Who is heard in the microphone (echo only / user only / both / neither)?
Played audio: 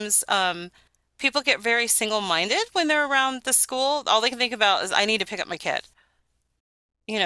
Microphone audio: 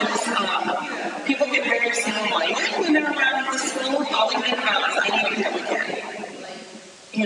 both